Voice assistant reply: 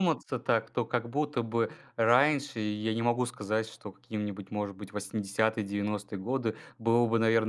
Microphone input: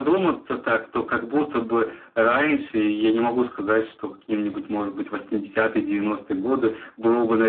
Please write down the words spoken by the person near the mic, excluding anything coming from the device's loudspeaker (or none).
none